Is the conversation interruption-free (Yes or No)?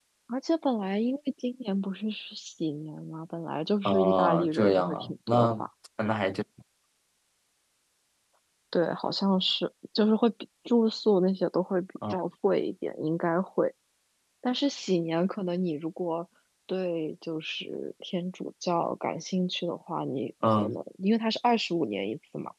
No